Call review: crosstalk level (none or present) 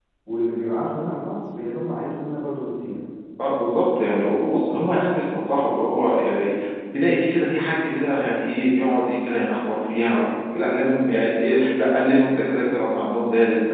none